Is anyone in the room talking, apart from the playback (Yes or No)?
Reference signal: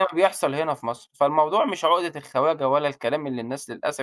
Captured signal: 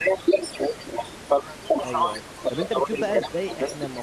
Yes